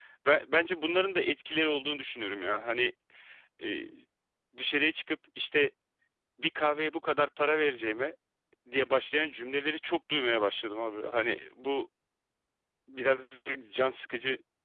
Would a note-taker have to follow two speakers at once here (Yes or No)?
No